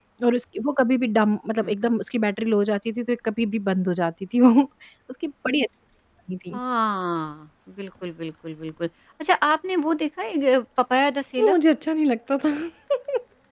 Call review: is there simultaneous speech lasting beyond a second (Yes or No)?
No